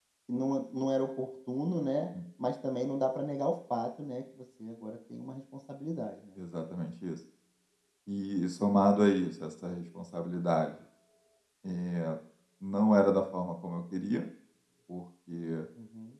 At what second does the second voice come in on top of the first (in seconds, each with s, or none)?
none